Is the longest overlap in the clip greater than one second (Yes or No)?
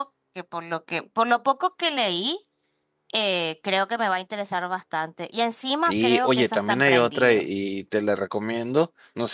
Yes